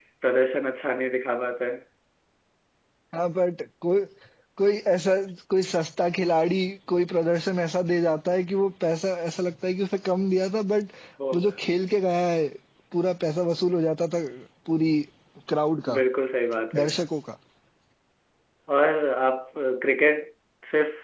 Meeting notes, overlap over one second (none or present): none